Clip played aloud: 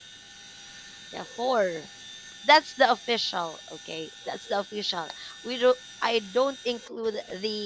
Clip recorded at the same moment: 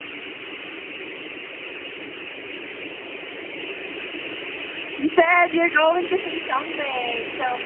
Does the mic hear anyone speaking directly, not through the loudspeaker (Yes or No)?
Yes